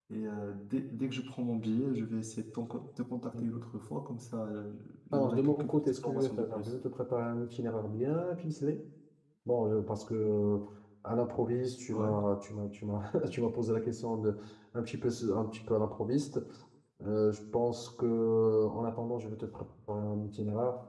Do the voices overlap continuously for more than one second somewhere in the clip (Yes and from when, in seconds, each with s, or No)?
Yes, from 5.1 s